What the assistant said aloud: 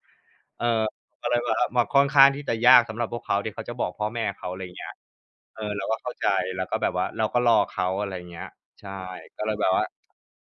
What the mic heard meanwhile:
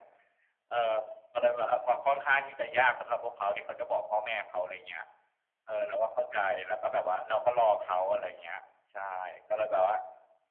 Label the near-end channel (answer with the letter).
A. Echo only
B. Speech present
A